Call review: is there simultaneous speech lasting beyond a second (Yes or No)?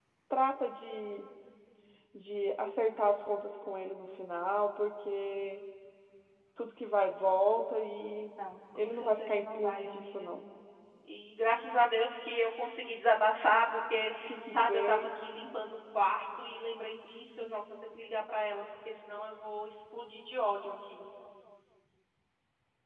Yes